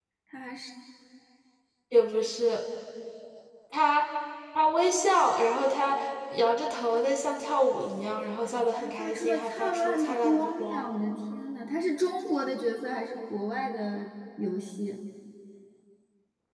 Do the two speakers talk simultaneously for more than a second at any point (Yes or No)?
Yes